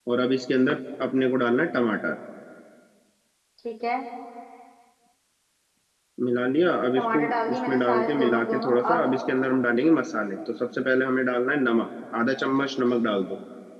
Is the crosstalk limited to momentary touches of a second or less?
No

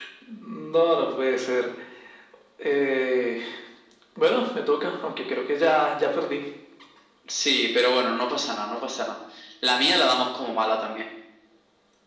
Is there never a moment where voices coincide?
Yes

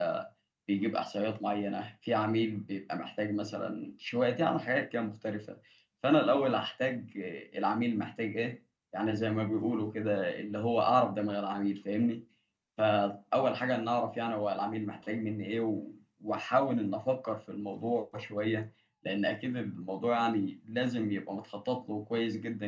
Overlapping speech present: No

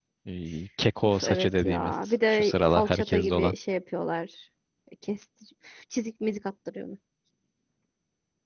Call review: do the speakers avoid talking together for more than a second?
No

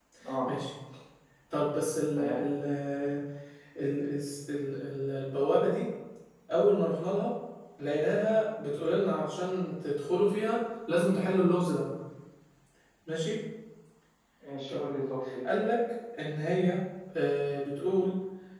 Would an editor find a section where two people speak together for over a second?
No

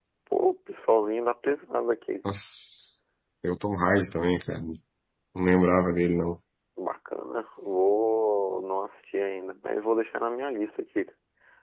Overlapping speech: No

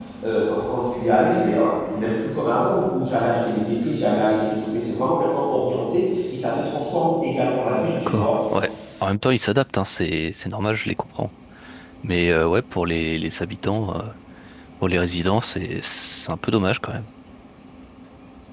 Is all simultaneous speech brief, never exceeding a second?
Yes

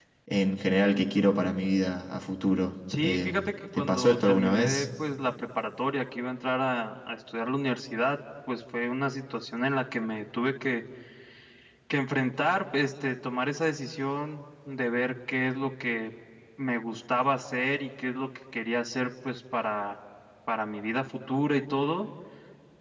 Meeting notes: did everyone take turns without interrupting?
No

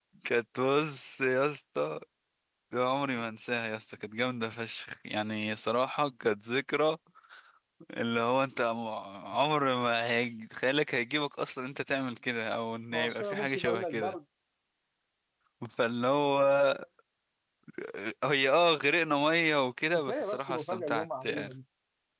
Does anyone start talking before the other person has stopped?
Yes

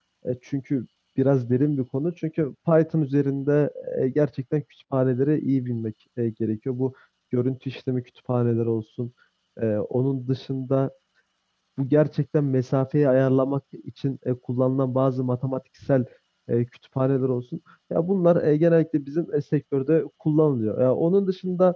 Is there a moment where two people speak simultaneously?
No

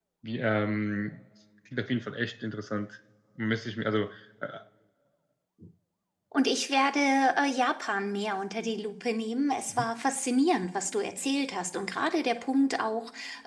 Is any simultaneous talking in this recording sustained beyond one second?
No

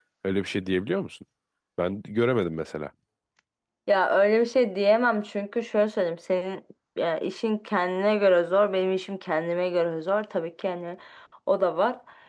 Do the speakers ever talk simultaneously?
No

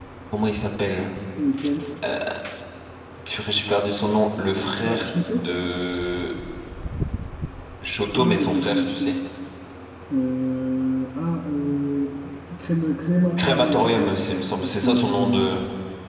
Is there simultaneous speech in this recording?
Yes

